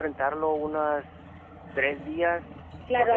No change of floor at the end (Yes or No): No